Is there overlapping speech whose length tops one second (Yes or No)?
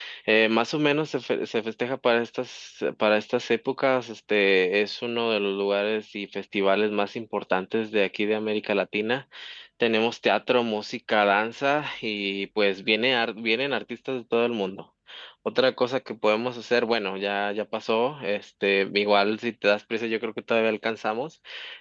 No